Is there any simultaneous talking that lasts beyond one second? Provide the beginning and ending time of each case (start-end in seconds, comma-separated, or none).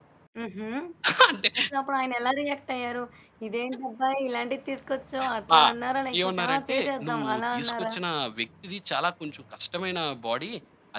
6.2-7.9